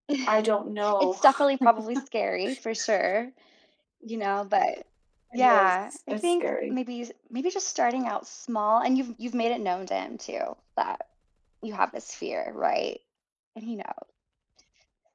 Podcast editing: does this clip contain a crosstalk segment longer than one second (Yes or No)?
Yes